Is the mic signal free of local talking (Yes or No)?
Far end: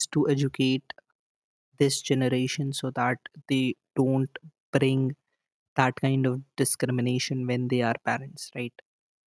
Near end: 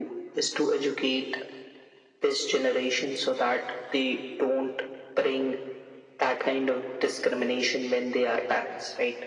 Yes